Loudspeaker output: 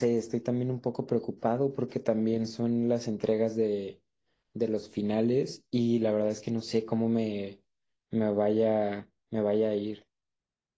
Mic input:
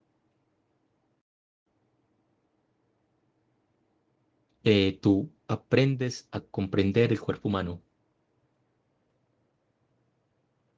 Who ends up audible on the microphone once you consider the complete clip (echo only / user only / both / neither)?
user only